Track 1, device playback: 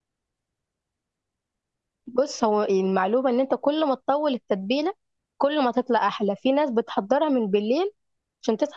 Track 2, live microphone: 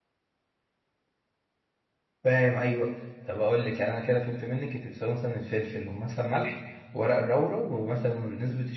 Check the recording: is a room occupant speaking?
Yes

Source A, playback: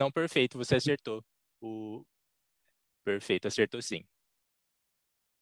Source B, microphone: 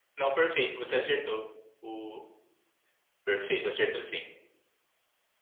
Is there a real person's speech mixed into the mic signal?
No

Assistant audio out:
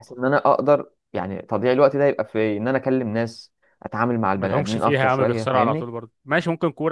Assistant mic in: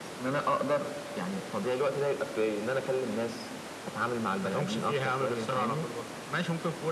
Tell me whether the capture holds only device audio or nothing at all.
Yes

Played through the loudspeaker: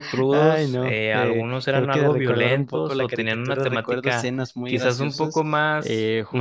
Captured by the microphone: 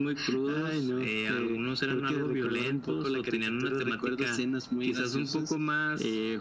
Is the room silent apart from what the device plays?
Yes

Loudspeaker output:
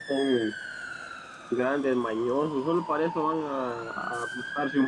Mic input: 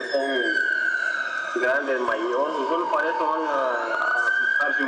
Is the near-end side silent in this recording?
Yes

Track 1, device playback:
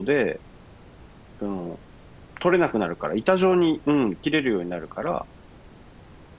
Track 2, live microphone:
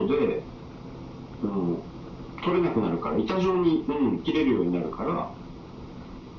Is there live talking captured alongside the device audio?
No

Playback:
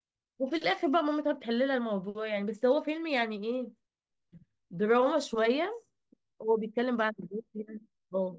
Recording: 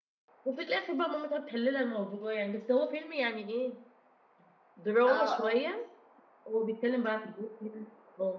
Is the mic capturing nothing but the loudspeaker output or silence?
No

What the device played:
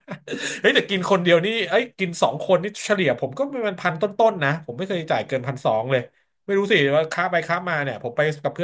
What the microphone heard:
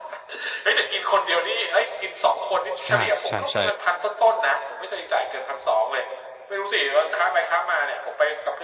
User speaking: Yes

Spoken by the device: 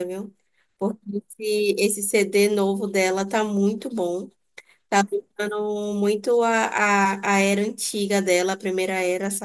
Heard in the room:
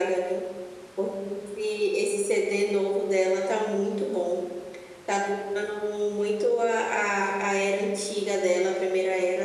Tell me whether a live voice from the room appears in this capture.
No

